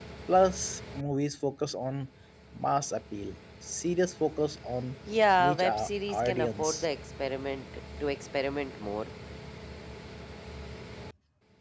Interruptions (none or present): present